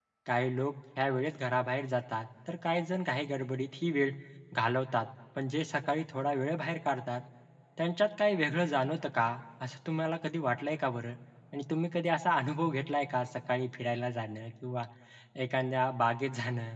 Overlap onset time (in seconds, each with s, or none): none